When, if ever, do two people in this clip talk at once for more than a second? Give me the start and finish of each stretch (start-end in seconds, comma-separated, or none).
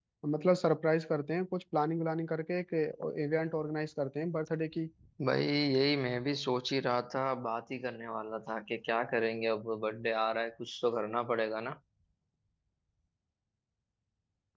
none